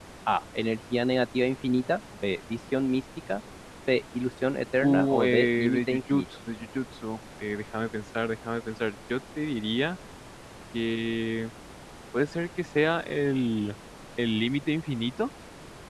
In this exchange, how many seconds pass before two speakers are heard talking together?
4.8 s

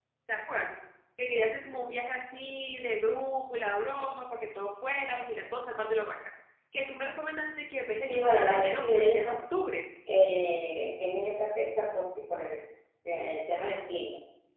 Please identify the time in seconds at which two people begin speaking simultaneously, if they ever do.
8.0 s

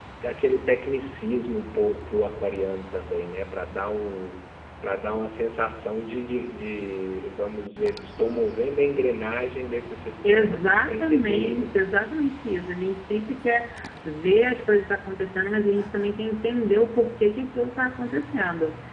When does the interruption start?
10.2 s

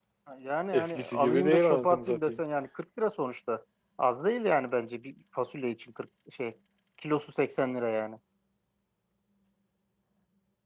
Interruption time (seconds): 0.7 s

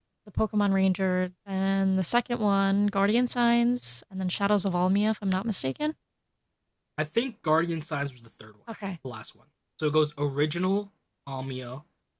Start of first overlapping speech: none

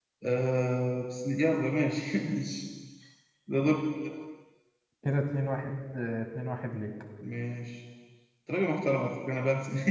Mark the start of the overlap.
none

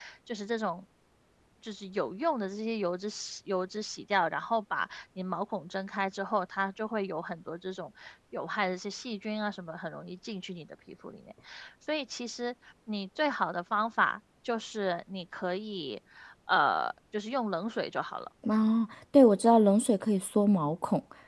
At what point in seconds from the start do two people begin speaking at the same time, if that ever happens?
none

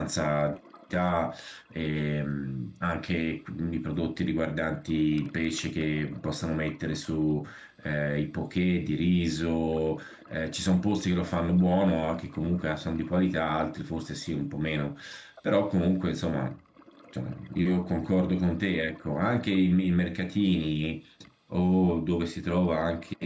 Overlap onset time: none

